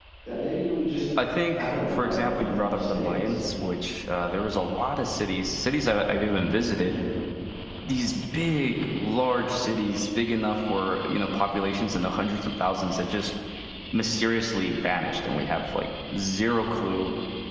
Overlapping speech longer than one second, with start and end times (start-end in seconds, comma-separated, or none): 1.4-3.4